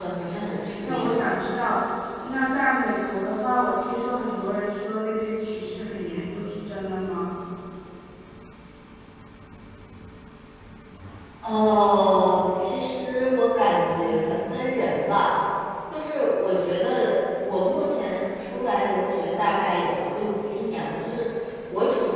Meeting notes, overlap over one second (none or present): none